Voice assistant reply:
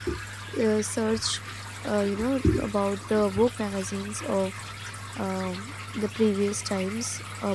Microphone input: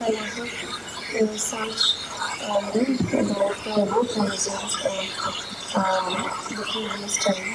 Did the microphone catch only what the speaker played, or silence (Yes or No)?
Yes